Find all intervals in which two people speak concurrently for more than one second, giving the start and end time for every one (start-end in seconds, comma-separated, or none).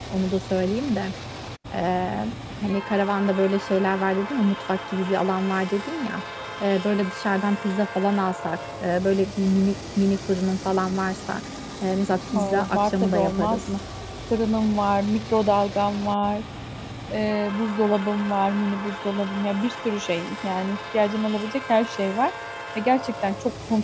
12.3-13.6